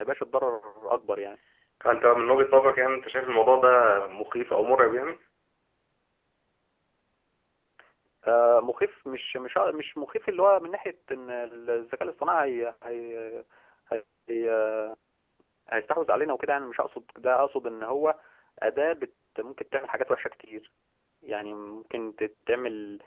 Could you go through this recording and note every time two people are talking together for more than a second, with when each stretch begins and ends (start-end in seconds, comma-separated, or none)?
none